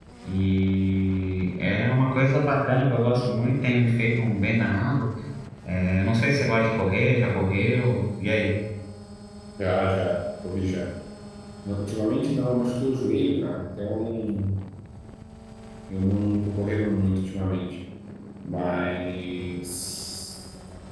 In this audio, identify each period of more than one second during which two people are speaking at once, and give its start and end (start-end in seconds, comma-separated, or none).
none